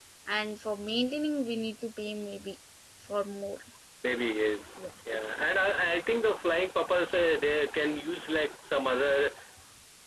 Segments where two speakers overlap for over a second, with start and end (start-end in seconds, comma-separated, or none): none